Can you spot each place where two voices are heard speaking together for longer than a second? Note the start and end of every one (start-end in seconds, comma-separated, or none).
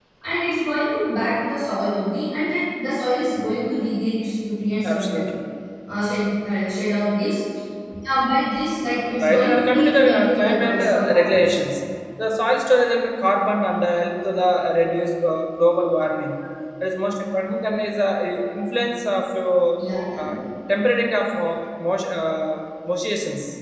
9.2-11.6